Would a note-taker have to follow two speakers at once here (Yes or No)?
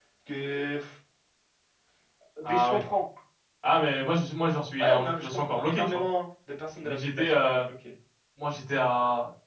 Yes